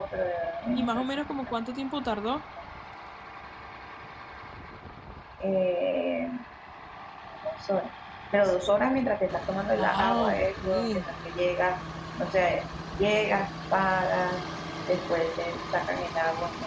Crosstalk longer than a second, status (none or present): present